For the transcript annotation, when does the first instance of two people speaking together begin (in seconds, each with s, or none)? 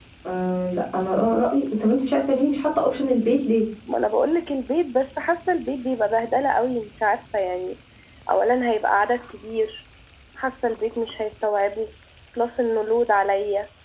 none